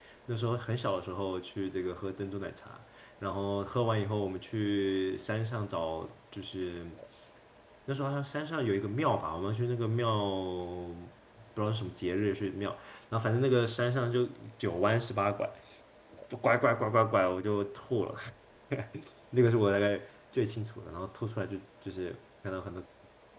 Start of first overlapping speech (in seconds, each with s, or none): none